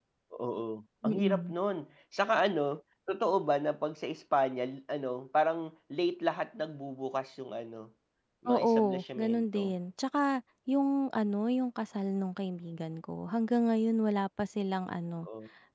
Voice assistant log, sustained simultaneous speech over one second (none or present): present